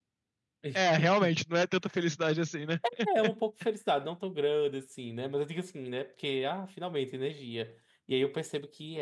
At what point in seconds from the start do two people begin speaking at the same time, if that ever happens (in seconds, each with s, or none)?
none